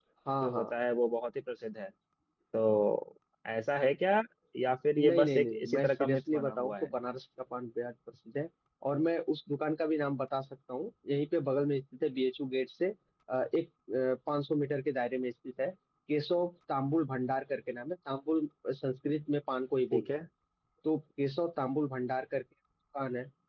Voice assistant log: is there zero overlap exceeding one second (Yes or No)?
No